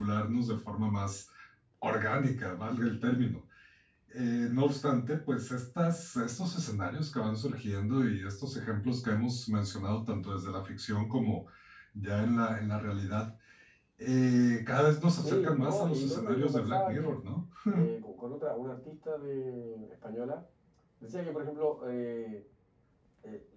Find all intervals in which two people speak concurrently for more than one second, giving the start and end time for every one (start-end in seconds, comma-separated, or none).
15.2-17.1